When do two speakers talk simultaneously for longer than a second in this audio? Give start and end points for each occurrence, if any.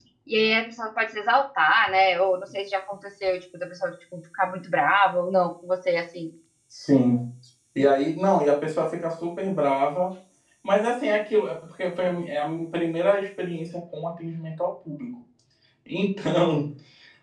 none

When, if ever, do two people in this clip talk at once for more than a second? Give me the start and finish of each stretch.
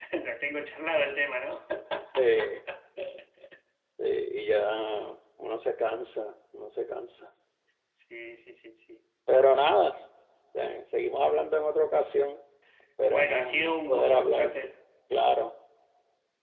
13.1-14.5

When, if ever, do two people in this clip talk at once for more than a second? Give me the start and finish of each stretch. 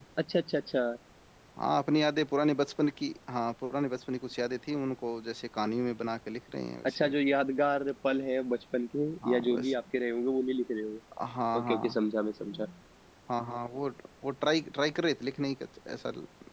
none

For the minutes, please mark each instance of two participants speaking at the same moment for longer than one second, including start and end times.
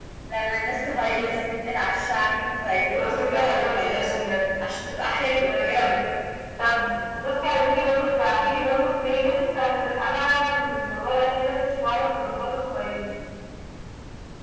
2.9-4.2

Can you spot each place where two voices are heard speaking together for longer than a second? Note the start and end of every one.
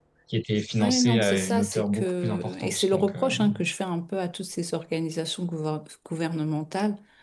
0.8-3.3

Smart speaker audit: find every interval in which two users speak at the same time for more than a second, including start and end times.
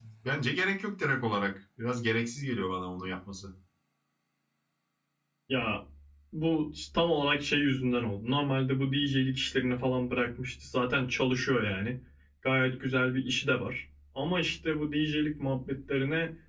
none

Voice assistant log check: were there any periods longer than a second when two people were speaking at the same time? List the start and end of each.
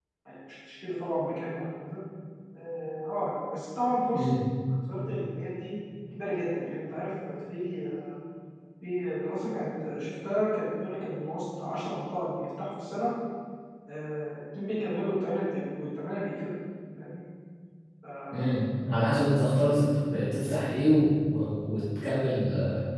none

